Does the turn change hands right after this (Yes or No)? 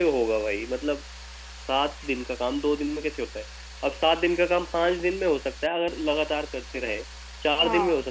No